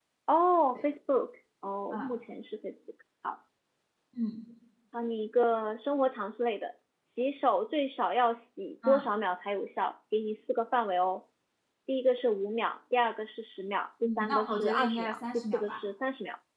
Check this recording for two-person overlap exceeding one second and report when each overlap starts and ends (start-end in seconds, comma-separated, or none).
14.0-15.8